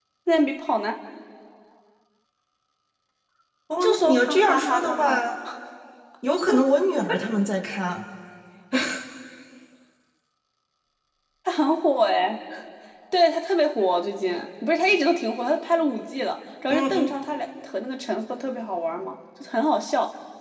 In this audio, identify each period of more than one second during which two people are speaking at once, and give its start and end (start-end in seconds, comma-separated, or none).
3.8-5.3